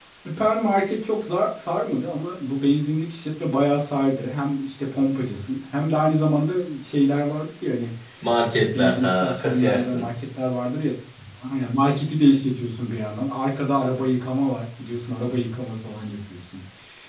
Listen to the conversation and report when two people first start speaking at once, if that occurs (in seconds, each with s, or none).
8.4 s